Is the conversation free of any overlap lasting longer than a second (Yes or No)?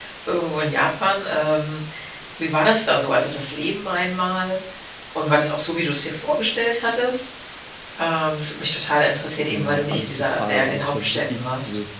No